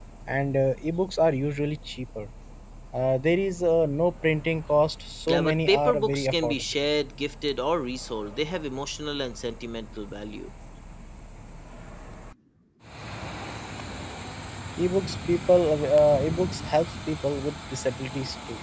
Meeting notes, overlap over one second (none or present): present